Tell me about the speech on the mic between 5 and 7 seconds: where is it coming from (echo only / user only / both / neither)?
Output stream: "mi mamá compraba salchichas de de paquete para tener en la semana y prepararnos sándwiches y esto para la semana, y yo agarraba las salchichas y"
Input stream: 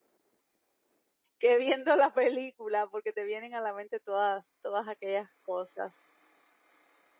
user only